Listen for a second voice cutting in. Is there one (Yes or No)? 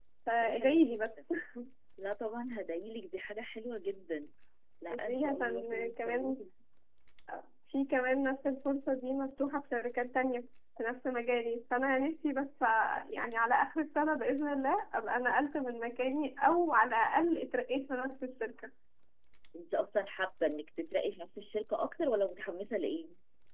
Yes